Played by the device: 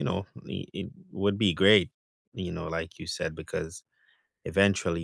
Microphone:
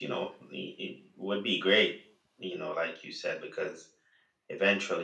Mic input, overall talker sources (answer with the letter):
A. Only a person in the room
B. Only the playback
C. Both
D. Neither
B